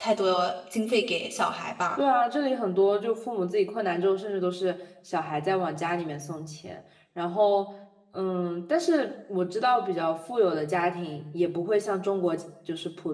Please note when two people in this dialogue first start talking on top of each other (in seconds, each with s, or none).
none